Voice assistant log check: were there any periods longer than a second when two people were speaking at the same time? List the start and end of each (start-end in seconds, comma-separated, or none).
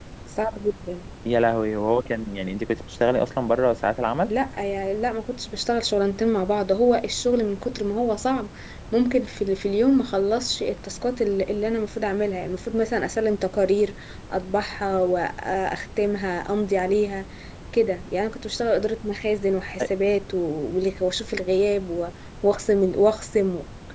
none